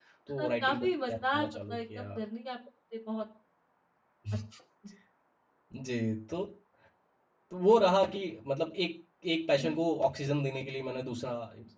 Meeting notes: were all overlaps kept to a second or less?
No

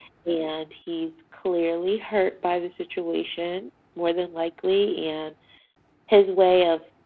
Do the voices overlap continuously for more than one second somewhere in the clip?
No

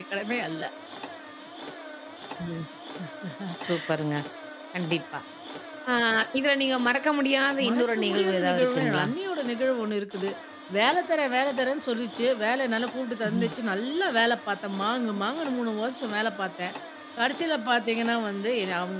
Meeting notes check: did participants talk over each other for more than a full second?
Yes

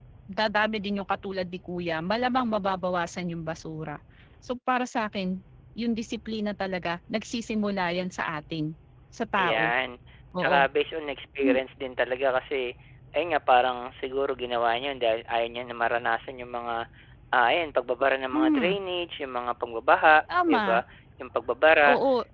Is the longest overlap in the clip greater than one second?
No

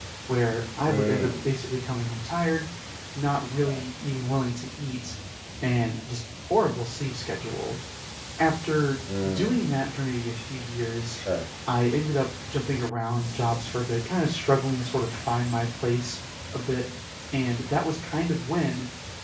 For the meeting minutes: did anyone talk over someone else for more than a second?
No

